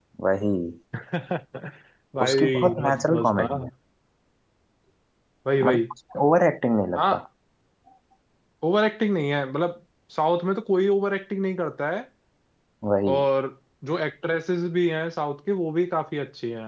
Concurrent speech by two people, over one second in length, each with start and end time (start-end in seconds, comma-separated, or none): 2.2-3.5